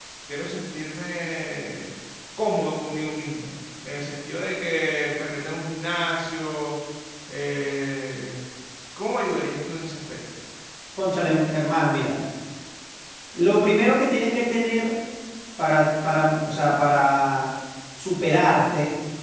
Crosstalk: none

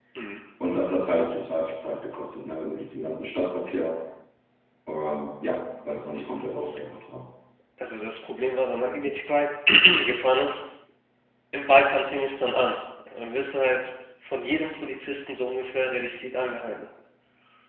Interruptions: none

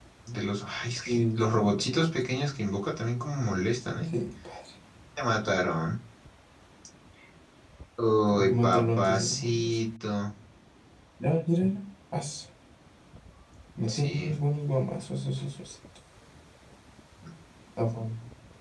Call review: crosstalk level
present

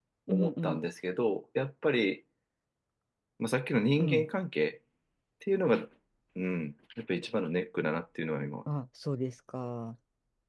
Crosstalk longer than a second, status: none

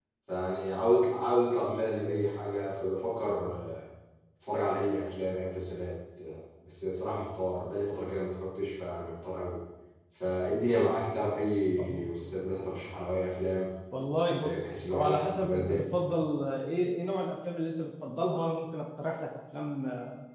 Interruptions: present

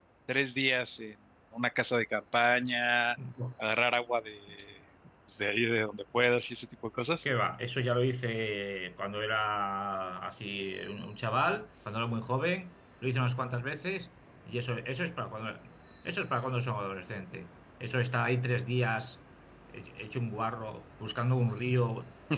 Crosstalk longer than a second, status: none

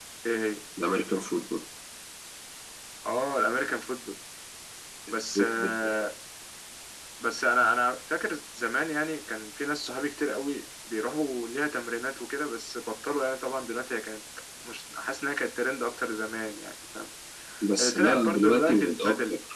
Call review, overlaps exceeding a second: present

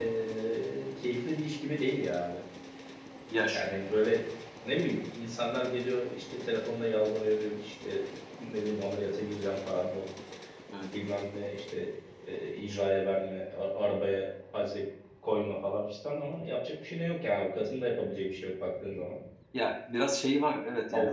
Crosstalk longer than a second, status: none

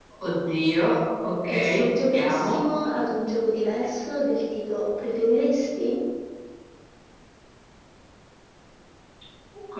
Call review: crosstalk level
present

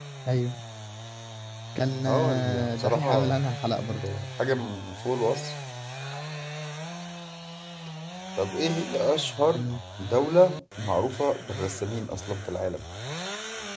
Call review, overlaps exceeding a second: present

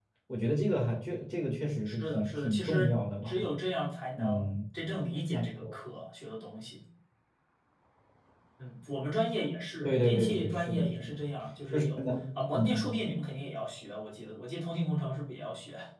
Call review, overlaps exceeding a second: present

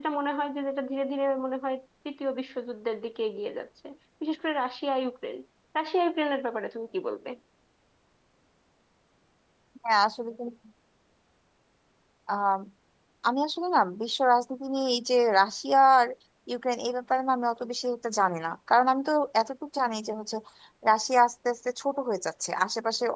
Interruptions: none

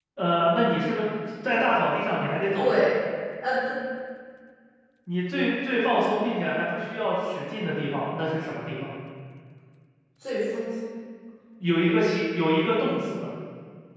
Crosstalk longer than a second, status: none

